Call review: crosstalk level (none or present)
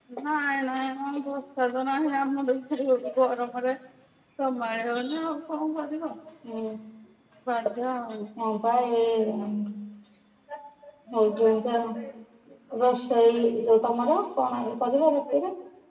none